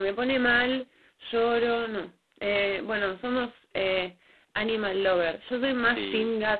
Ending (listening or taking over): listening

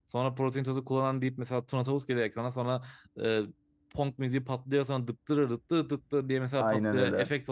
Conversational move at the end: listening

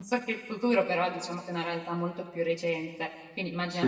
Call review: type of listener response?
listening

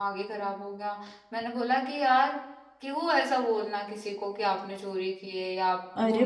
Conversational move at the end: taking over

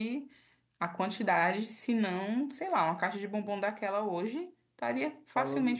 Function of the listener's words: taking over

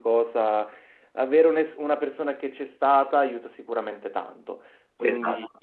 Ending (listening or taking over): listening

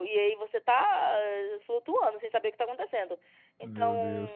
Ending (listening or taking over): listening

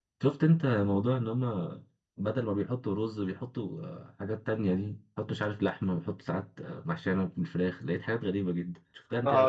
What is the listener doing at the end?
taking over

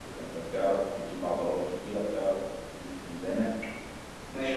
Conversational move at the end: listening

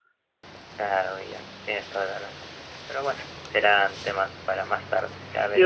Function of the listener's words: taking over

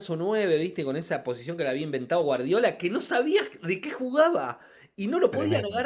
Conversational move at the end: listening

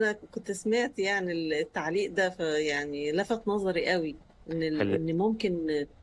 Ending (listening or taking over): listening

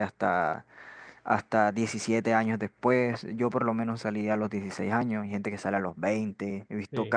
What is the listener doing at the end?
listening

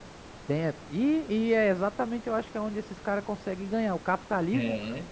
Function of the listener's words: listening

